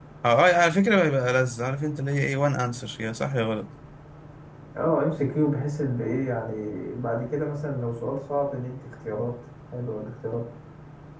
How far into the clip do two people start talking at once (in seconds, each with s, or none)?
none